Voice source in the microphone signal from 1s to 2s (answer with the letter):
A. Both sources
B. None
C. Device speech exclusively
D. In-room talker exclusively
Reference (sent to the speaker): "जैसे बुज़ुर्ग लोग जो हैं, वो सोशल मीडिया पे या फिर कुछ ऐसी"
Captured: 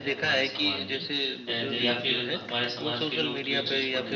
A